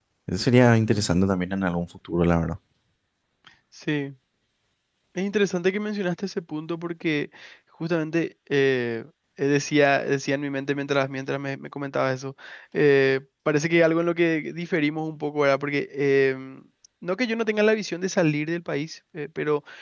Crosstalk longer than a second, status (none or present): none